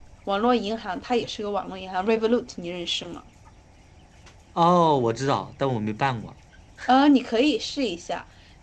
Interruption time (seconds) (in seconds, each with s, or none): none